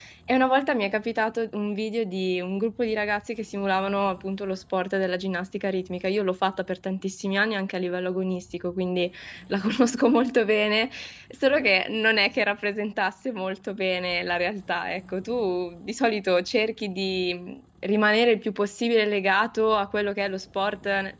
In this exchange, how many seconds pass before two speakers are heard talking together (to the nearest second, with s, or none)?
none